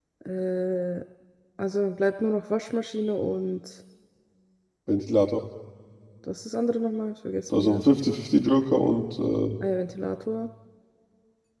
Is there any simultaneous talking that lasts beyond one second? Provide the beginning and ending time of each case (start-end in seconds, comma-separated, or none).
none